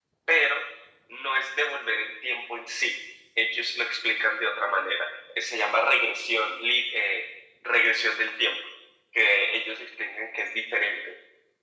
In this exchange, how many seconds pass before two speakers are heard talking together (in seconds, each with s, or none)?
none